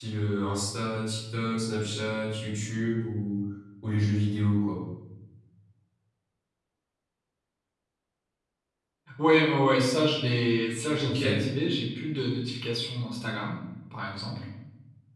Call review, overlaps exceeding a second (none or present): none